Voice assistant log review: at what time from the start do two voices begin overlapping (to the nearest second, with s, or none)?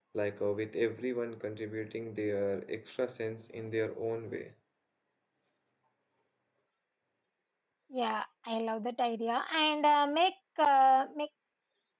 none